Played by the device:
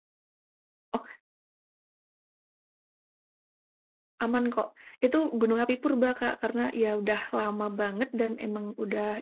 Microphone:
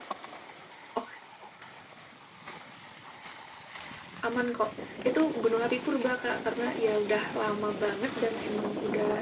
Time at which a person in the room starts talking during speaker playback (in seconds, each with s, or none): none